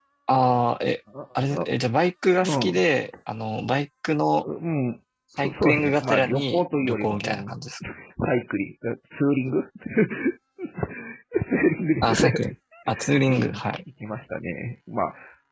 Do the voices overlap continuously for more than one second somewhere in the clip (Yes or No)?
Yes